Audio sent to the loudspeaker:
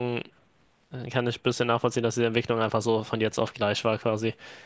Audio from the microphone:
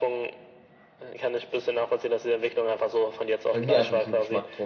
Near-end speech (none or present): present